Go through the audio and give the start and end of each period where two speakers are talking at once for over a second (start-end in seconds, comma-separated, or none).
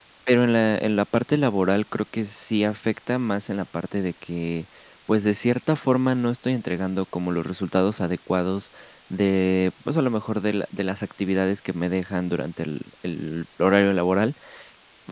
none